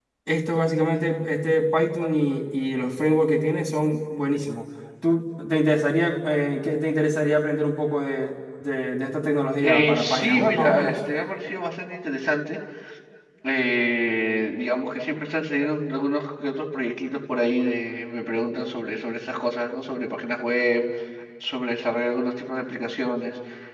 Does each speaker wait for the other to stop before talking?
No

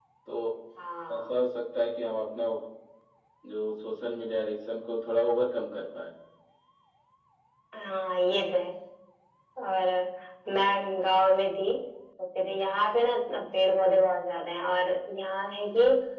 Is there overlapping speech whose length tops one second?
No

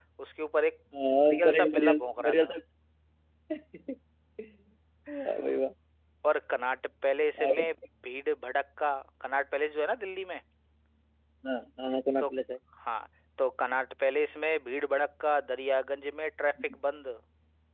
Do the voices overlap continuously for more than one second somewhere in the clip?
Yes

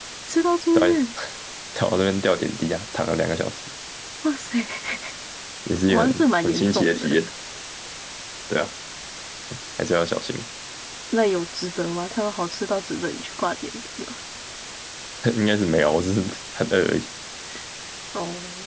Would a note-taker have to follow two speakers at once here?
Yes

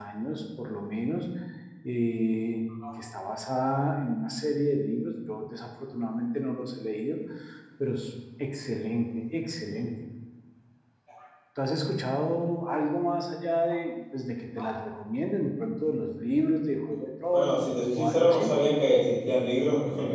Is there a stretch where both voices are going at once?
Yes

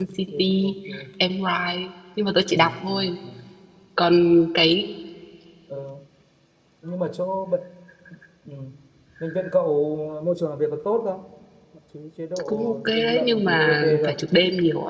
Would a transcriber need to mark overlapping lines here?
Yes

